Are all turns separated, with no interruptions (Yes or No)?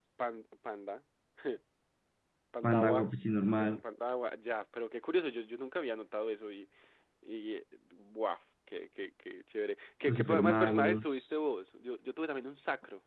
No